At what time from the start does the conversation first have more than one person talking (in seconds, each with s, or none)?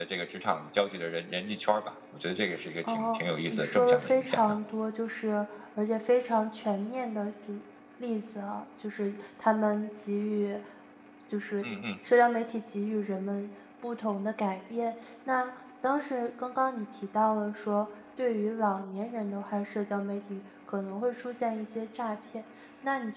2.8 s